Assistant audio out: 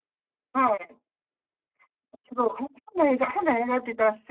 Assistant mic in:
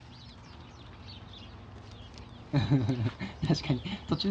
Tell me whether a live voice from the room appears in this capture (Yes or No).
Yes